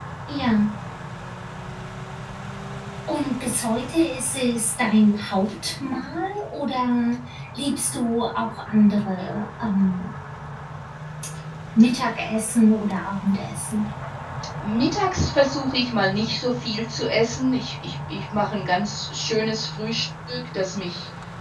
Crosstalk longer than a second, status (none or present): none